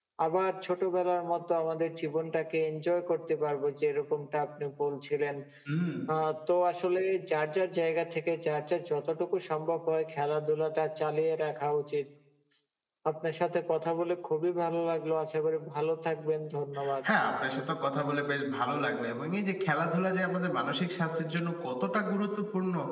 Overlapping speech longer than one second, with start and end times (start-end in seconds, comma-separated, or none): none